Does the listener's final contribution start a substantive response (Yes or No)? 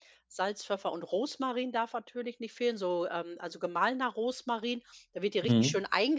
No